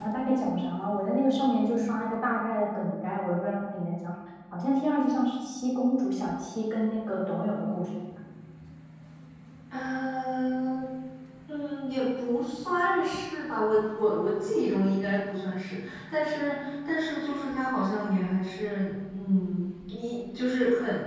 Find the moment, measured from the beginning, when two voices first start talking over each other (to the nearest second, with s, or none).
none